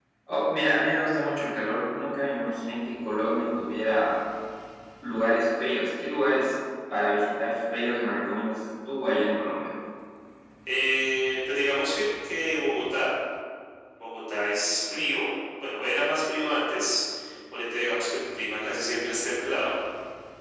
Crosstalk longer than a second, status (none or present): none